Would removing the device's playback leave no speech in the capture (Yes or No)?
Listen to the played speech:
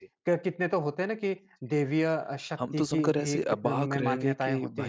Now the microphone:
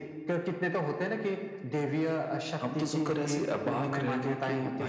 Yes